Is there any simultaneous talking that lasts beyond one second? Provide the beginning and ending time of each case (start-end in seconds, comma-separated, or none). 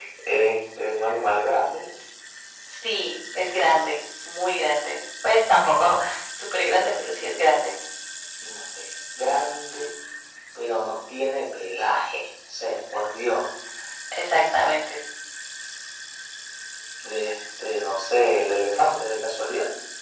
none